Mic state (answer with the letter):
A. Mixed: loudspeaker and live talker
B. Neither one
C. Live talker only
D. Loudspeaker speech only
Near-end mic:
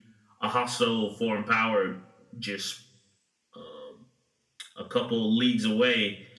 D